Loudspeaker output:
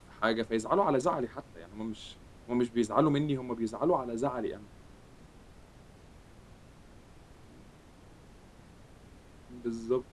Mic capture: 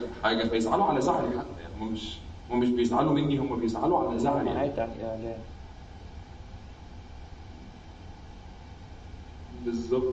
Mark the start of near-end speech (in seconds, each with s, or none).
4.1 s